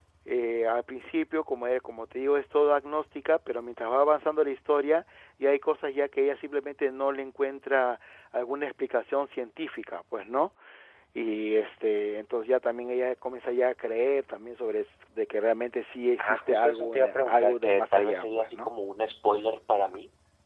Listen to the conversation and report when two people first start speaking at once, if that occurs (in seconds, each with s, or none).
16.2 s